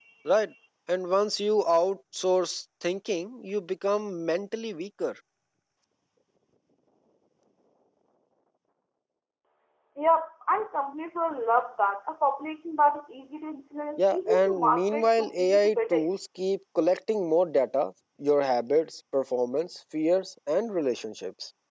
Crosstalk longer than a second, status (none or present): present